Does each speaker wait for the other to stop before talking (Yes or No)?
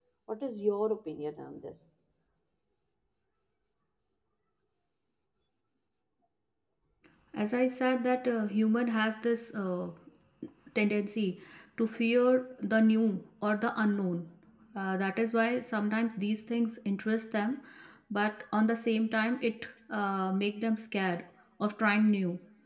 Yes